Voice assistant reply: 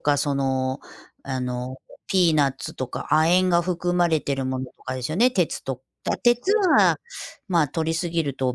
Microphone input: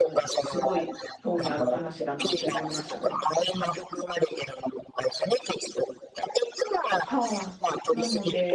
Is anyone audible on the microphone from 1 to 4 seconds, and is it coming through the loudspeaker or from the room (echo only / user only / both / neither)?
both